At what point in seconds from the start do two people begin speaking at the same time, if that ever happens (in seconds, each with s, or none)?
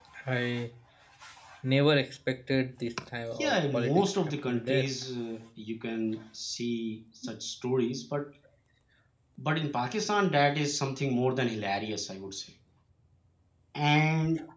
3.4 s